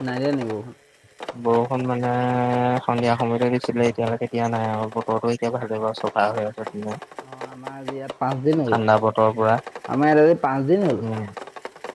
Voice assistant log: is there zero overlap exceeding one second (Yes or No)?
Yes